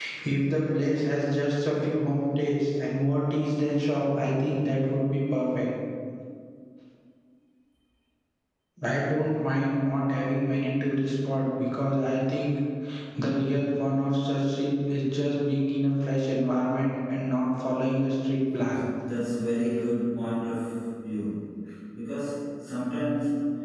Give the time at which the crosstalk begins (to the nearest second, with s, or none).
none